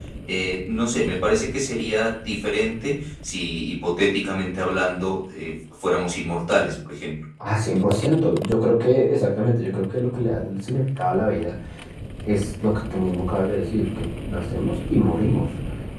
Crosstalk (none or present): none